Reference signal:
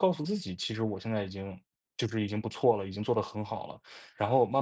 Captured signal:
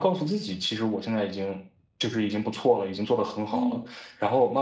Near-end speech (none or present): present